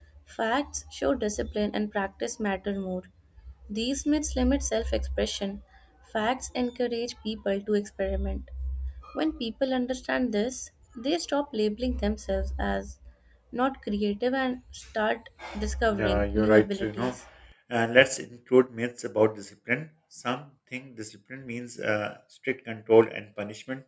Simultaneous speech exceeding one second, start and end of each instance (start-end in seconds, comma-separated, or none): 15.9-17.1